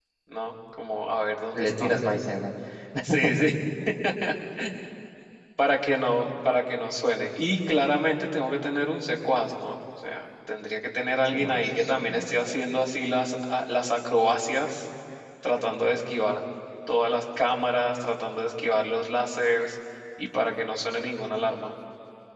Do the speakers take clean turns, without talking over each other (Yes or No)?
No